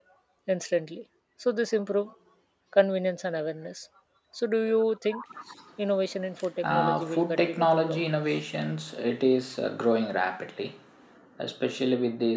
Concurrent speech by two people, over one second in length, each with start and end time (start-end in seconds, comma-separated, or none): 6.6-8.0